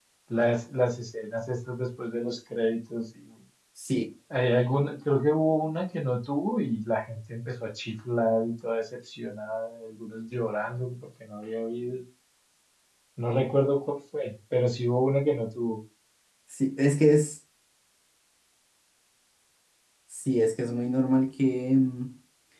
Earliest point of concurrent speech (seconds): none

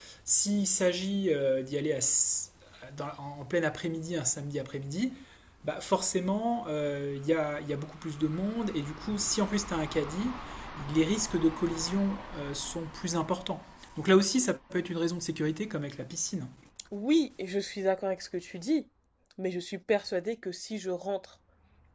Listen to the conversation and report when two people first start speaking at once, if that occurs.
none

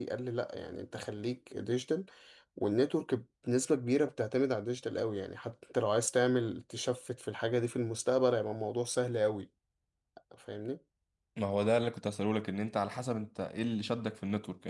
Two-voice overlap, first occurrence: none

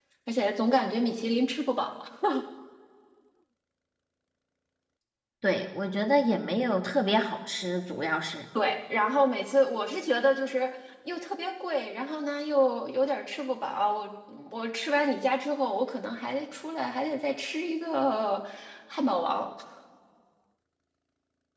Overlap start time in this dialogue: none

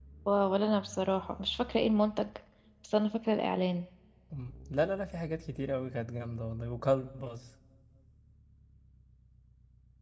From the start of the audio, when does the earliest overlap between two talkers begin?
none

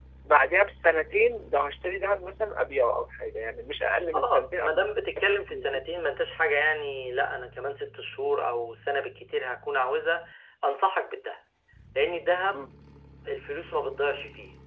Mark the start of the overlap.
4.1 s

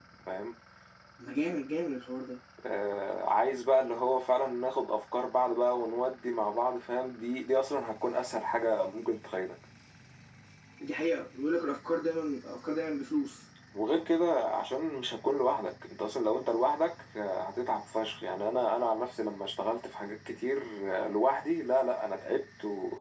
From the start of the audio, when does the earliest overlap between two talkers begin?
none

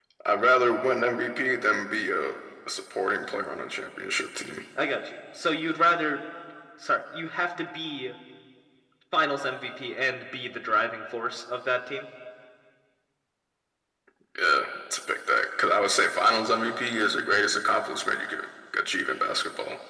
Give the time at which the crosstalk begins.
none

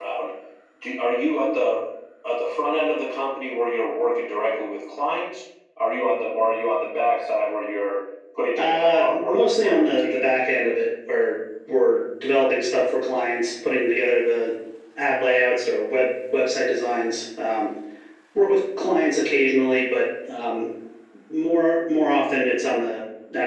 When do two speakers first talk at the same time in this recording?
8.6 s

